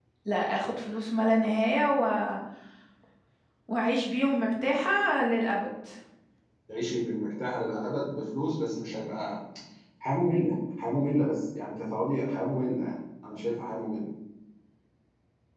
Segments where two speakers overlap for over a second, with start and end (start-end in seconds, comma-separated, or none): none